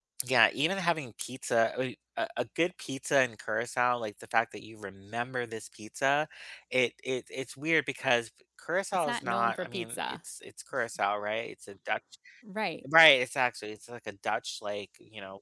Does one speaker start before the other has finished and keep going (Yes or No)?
Yes